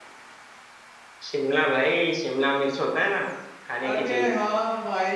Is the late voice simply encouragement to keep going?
No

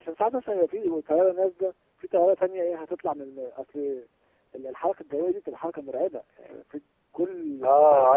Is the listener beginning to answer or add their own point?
Yes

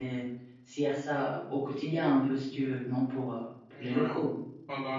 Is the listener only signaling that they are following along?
No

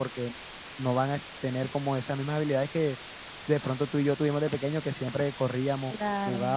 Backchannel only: Yes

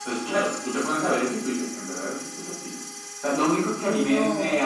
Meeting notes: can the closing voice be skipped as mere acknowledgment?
Yes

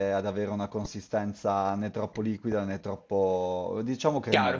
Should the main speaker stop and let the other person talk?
Yes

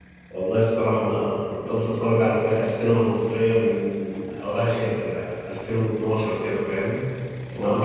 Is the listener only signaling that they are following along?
Yes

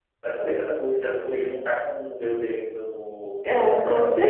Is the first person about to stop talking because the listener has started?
Yes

